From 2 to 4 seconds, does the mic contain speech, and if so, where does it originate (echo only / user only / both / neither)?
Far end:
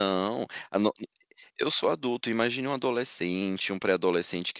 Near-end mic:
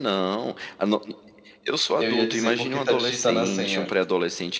both